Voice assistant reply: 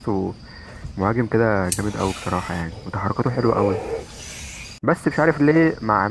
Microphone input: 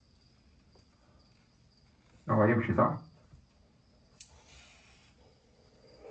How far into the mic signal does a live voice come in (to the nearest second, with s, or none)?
2 s